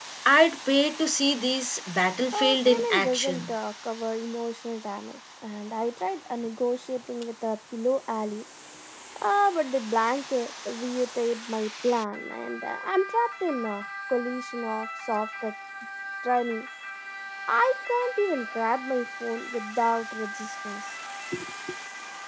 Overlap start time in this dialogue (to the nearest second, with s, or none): 2 s